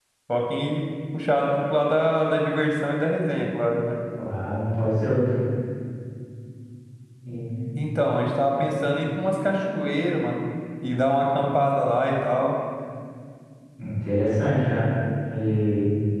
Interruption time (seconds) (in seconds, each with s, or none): none